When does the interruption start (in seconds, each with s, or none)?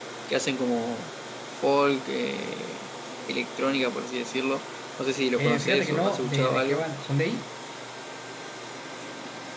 5.4 s